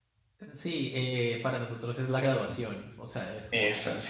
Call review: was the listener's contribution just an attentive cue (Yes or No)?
Yes